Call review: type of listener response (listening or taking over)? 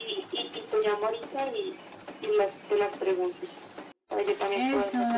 taking over